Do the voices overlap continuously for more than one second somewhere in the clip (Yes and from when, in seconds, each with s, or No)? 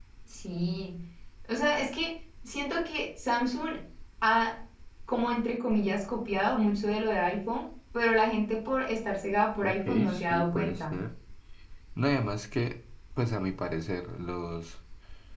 Yes, from 9.6 s